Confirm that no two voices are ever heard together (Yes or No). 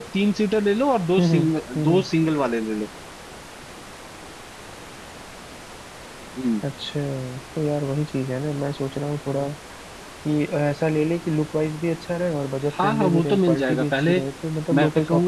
No